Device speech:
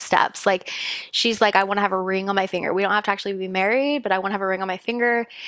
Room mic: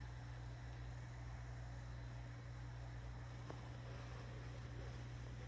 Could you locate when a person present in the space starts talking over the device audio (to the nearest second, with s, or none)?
none